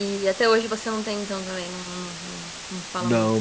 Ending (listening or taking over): taking over